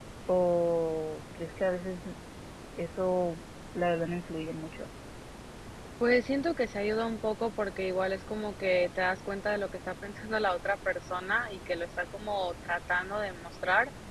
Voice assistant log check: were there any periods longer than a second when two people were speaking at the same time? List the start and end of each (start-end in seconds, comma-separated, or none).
none